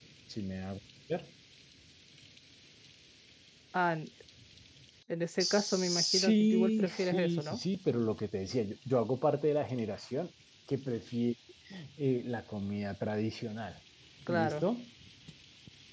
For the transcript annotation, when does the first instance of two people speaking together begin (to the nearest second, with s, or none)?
5 s